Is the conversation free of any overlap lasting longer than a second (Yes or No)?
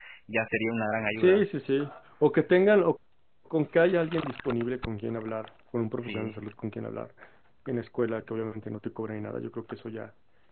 Yes